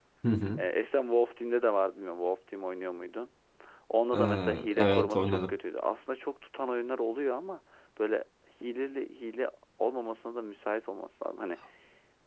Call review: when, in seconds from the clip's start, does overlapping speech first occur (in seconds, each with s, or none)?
4.1 s